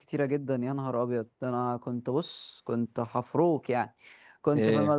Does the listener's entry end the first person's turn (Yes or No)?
No